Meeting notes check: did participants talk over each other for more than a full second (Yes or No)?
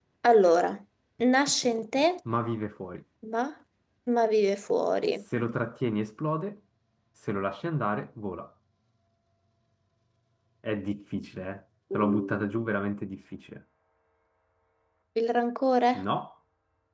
No